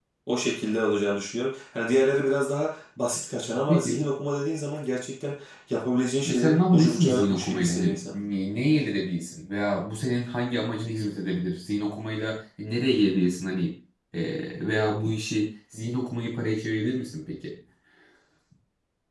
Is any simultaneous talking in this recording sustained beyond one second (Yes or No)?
Yes